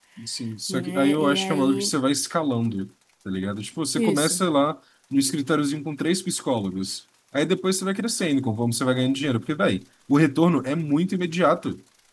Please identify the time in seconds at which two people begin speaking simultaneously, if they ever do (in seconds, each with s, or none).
0.7 s